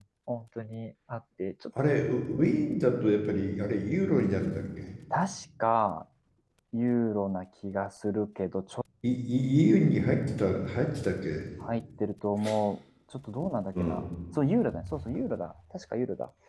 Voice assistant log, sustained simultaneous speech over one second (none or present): none